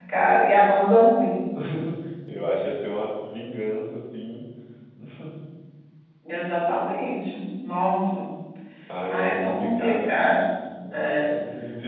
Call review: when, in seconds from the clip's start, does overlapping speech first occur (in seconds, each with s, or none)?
9.1 s